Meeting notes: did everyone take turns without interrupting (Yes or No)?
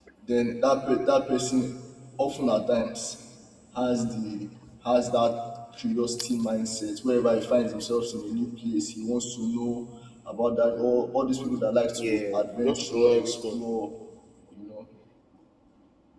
No